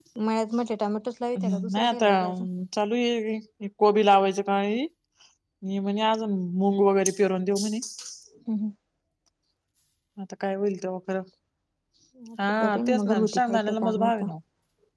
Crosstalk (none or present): present